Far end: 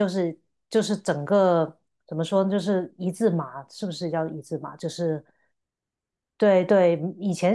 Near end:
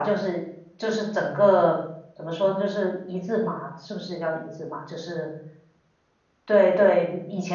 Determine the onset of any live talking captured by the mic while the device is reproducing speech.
none

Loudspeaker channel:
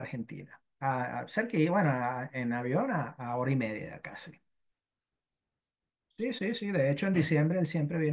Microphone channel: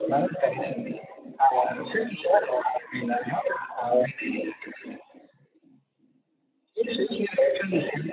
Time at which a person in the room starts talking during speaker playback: none

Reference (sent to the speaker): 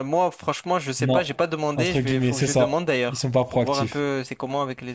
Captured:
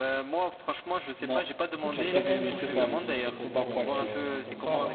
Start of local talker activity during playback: 1.8 s

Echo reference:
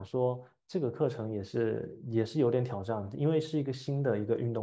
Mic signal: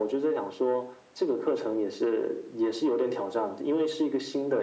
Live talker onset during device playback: none

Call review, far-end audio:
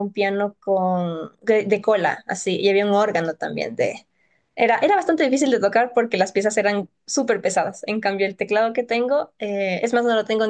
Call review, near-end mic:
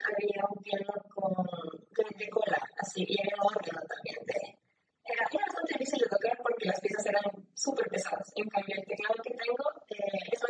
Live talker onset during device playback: none

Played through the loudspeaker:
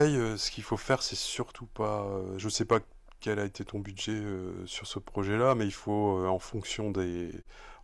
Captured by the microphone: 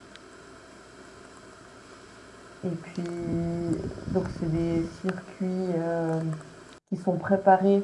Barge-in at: 2.6 s

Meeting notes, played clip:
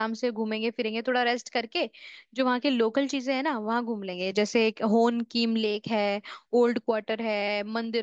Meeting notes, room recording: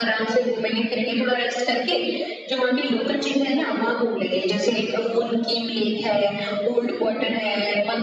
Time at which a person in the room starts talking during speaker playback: none

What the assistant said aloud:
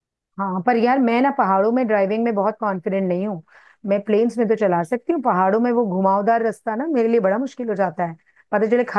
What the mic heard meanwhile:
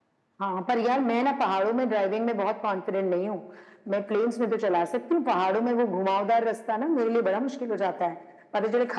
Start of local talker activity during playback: none

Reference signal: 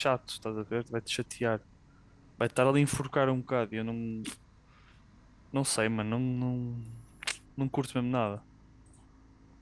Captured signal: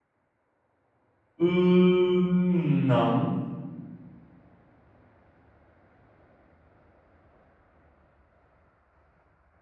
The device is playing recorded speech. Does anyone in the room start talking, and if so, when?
1.4 s

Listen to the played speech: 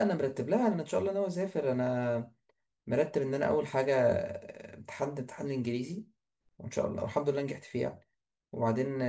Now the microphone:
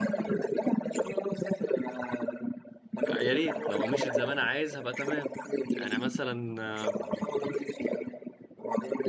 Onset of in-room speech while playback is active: 3.1 s

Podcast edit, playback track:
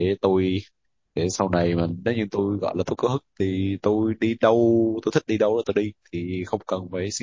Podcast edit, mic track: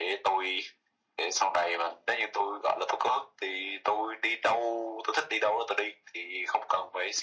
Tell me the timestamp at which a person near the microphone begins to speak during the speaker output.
none

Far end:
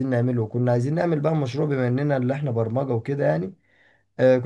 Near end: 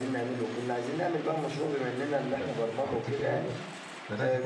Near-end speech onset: 2.4 s

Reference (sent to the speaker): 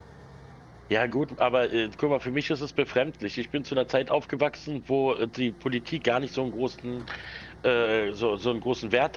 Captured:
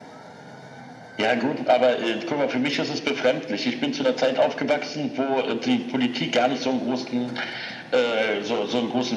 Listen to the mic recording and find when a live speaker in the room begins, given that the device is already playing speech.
none

